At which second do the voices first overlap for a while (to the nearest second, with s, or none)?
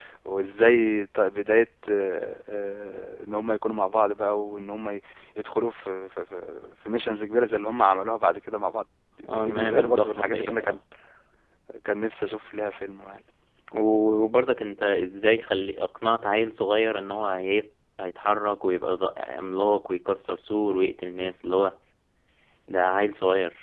9 s